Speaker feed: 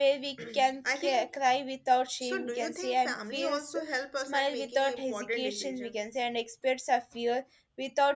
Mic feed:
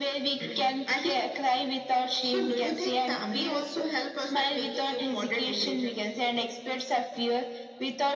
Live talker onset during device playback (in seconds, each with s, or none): none